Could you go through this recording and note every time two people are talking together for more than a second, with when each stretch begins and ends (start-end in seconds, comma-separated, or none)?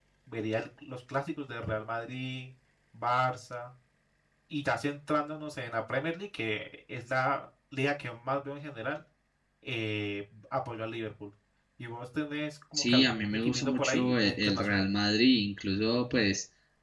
12.7-14.8